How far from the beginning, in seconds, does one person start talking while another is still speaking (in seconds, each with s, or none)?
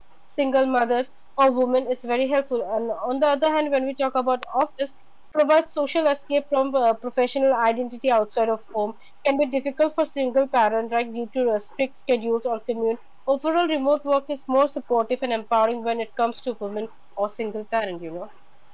none